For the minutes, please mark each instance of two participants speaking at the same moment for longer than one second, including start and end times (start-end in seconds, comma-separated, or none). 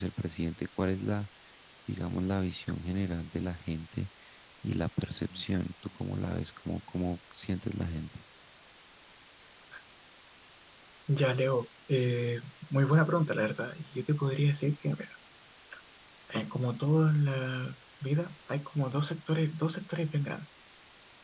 none